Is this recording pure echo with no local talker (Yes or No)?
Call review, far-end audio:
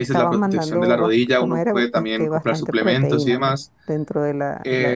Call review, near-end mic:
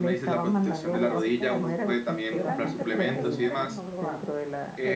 No